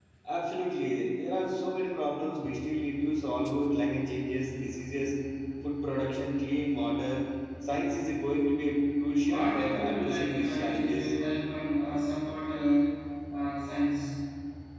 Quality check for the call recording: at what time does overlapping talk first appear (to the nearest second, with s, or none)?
9 s